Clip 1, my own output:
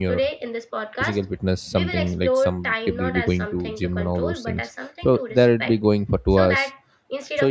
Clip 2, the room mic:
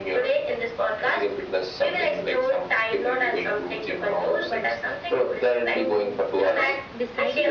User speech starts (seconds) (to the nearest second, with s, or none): 6 s